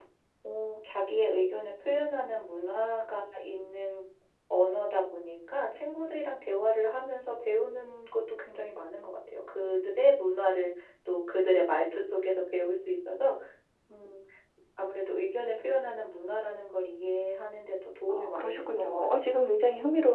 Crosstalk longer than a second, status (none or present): present